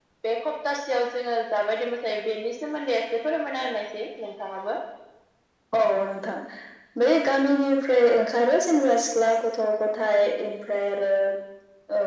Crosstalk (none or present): none